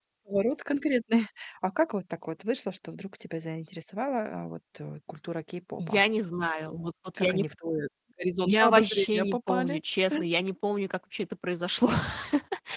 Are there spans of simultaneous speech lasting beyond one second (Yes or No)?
Yes